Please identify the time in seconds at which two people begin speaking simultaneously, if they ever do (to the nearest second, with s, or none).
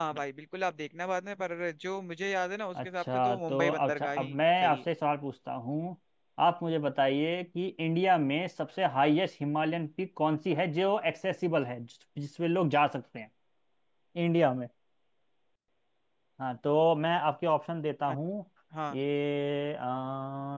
3 s